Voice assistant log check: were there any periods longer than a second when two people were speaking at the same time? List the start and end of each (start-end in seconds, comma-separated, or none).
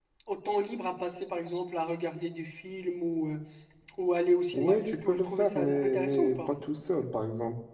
4.5-6.5